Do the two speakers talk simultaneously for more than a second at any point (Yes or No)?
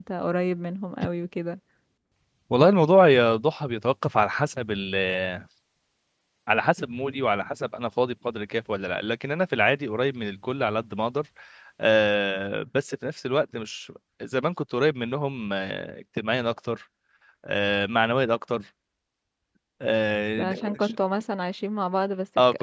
No